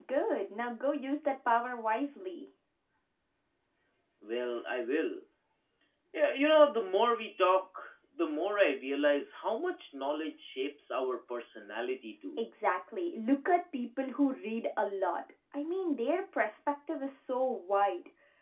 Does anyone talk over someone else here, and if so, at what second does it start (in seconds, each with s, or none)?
none